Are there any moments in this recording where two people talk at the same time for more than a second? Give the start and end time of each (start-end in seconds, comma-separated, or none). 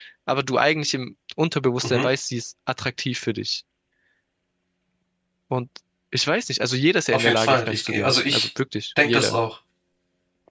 7.1-8.5